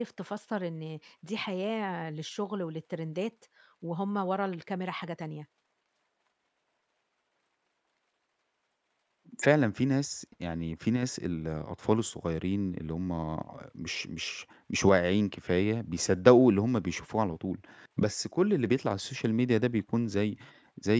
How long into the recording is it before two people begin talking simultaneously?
none

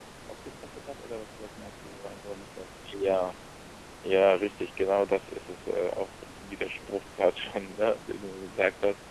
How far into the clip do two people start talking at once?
none

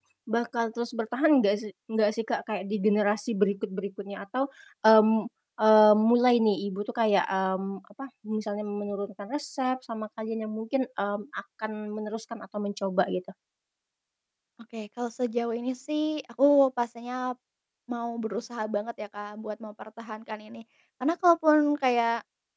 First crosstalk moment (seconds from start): none

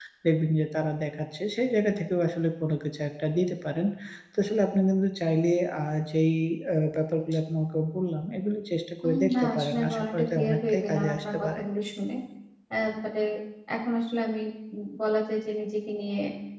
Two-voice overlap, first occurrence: 9.0 s

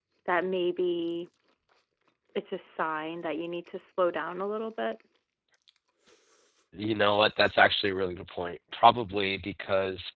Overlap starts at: none

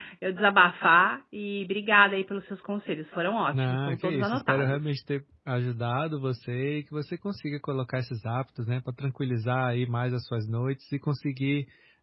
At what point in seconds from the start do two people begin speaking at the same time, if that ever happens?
3.5 s

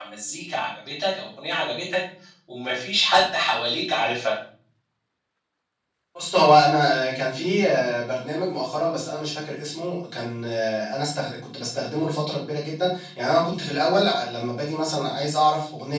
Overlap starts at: none

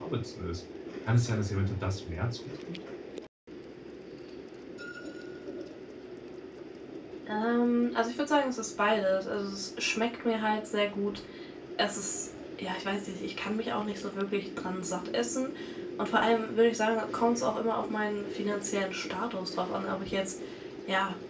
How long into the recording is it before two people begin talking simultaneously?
none

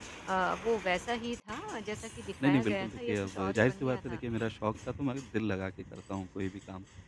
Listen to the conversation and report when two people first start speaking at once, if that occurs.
2.4 s

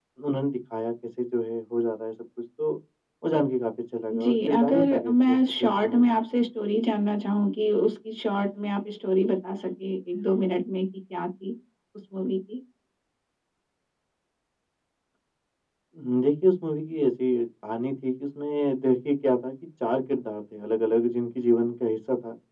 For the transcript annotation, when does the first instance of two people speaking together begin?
4.1 s

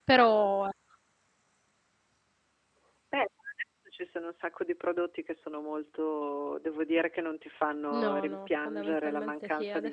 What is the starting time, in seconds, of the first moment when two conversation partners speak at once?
7.9 s

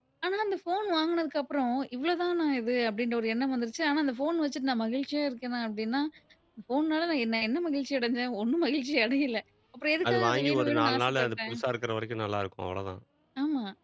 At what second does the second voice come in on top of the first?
10.1 s

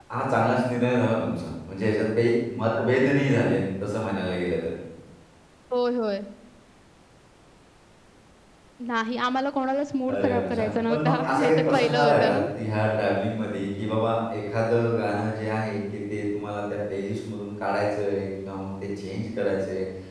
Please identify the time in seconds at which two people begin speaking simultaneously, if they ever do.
10.1 s

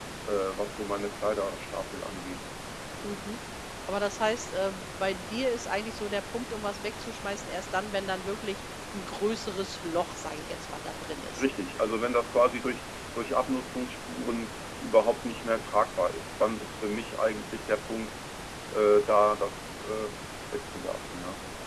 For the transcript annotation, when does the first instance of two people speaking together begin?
none

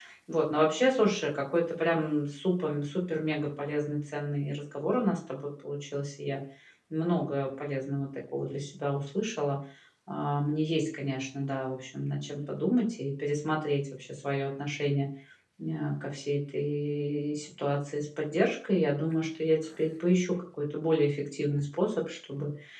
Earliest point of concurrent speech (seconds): none

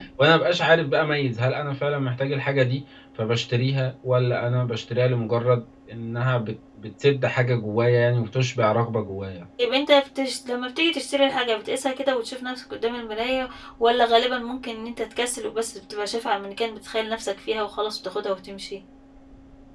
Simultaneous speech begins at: none

